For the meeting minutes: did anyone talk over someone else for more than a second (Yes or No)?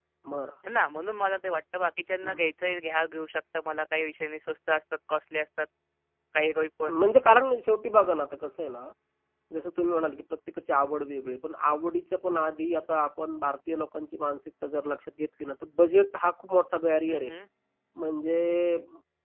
No